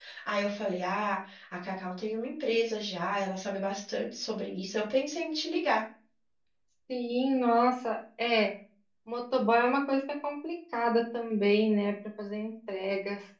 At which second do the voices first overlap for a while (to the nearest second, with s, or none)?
none